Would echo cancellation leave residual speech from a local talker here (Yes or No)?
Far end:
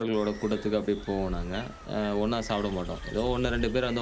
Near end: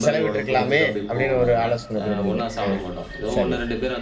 Yes